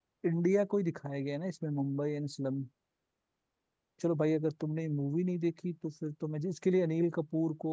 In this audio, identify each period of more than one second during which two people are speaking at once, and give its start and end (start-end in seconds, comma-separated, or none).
none